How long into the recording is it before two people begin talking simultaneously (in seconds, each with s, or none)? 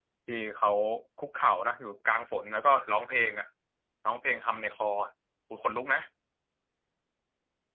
none